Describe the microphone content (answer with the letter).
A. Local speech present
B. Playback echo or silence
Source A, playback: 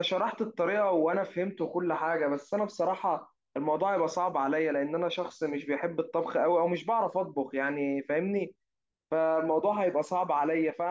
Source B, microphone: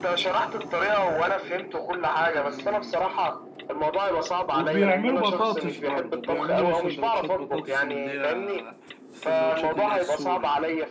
A